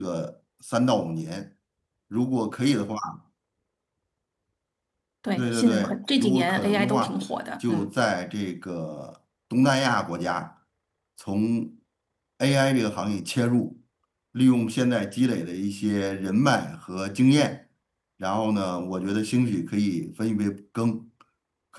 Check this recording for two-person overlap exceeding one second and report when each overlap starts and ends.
5.4-7.2

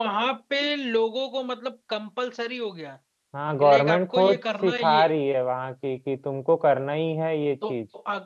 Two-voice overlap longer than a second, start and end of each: 3.6-5.0

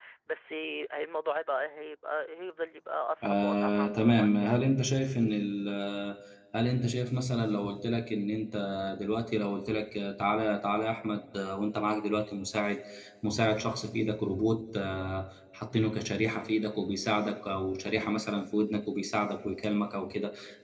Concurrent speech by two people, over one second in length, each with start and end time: 3.2-4.6

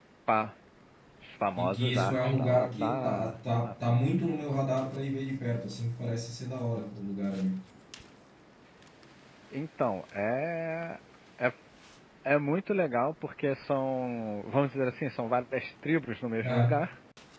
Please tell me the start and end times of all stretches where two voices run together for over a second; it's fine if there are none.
1.6-3.7

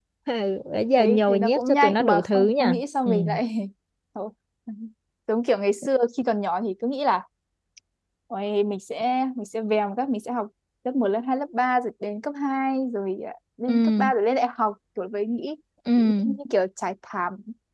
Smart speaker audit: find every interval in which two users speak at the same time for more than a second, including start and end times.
1.0-3.1

